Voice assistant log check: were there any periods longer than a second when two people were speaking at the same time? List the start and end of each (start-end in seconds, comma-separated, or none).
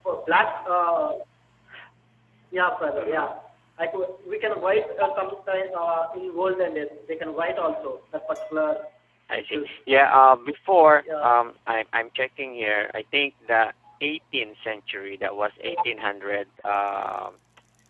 none